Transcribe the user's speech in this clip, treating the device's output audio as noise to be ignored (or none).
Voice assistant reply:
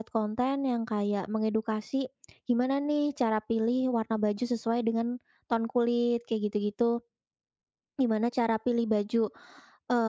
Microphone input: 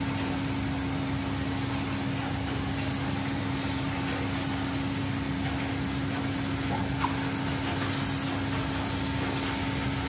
none